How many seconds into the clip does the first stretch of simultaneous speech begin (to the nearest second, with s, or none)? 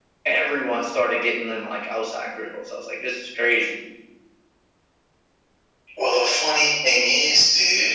none